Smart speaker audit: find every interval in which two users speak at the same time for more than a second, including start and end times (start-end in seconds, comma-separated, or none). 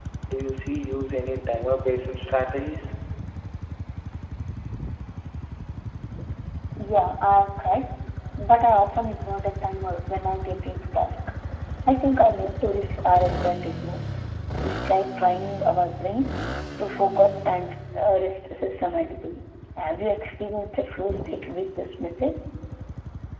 none